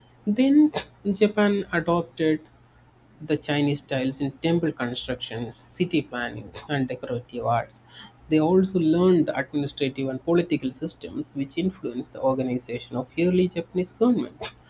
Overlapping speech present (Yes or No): No